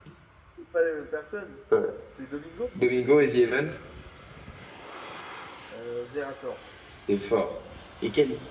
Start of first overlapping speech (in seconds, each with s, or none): none